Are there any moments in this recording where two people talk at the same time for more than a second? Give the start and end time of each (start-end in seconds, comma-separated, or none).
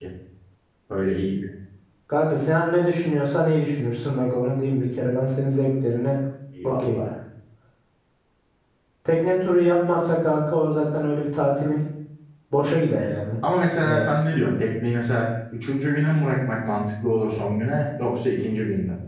none